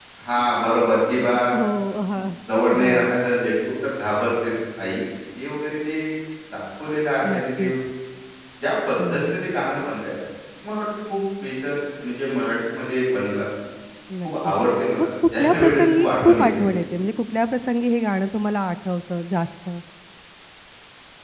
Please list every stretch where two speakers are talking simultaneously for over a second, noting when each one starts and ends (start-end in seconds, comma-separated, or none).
15.0-16.7